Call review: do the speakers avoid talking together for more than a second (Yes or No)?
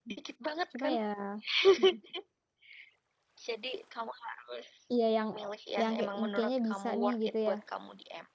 No